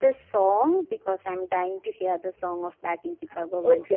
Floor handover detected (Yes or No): Yes